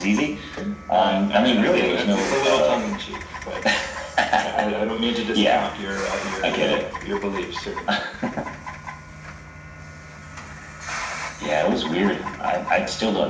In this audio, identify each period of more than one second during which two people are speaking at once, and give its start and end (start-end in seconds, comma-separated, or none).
0.9-2.8